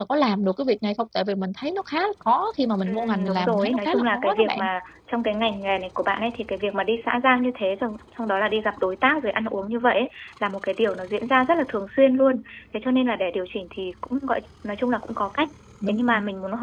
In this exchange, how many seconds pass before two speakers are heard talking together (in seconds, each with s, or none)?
2.9 s